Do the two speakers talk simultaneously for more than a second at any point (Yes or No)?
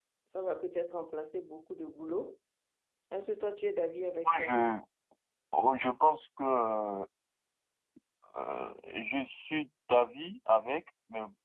No